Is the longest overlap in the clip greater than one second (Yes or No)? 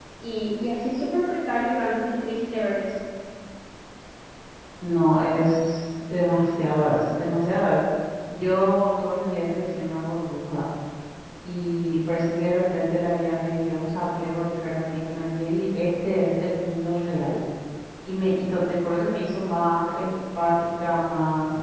No